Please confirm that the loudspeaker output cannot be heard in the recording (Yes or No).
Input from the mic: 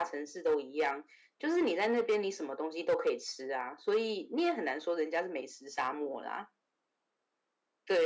No